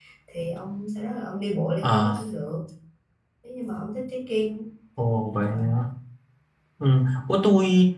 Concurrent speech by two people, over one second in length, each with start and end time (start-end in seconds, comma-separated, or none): none